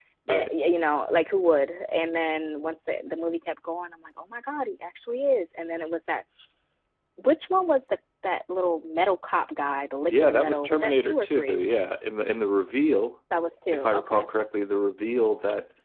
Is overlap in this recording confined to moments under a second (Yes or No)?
No